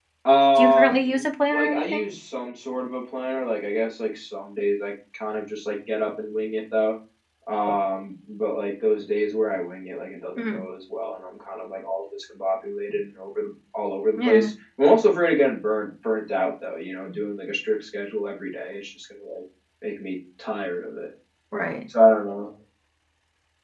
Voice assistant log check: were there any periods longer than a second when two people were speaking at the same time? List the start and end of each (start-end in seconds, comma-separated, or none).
0.6-2.0